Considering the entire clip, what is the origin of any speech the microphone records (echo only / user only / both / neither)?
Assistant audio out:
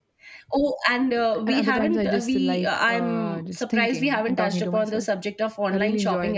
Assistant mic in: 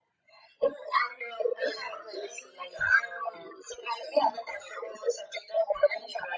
echo only